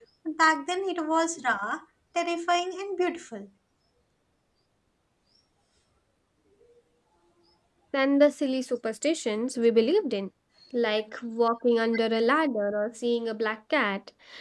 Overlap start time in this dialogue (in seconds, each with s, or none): none